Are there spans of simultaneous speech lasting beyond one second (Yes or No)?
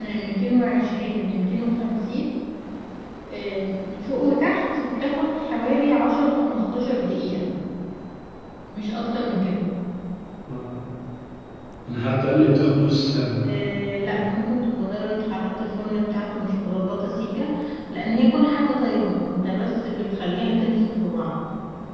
No